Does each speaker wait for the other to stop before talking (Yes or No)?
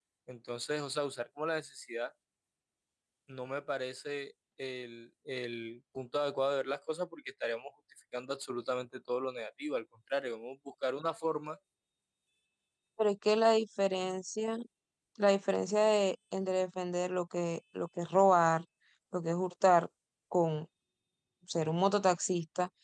Yes